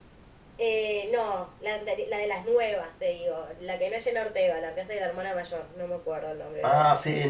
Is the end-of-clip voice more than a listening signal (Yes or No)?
Yes